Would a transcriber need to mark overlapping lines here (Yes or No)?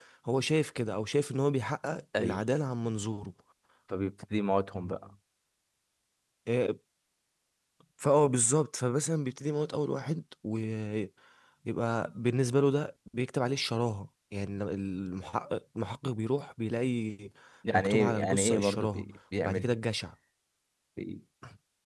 Yes